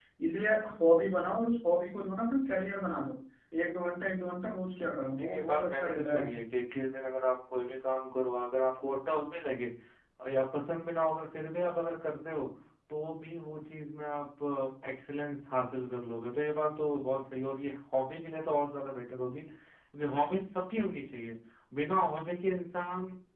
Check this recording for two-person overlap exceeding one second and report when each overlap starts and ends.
4.8-6.3

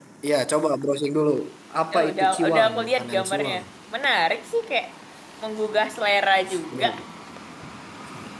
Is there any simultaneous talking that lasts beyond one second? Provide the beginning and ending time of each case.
1.9-3.5

